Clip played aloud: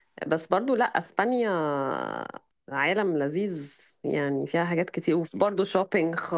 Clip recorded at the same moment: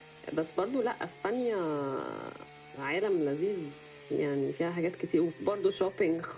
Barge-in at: none

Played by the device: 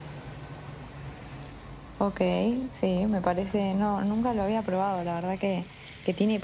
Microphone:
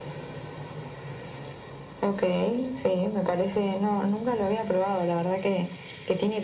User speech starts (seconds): none

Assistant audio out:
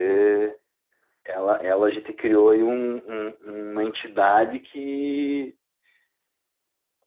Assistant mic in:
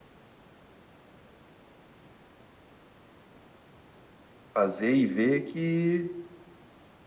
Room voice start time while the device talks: 4.5 s

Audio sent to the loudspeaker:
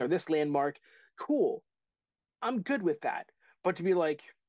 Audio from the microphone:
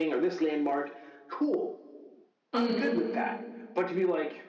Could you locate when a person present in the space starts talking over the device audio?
2.5 s

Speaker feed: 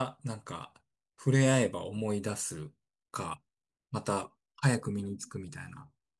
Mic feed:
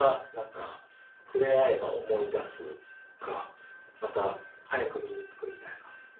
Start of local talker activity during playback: none

